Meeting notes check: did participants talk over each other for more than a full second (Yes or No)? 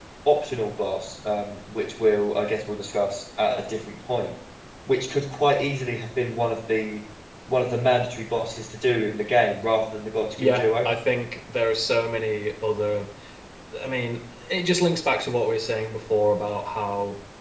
No